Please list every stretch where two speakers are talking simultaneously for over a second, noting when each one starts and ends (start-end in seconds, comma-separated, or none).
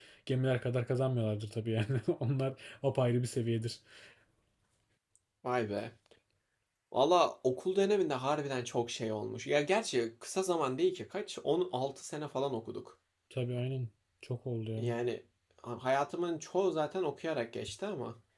none